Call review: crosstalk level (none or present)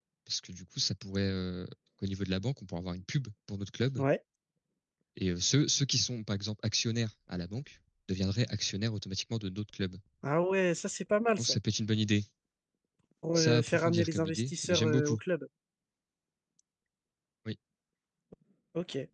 present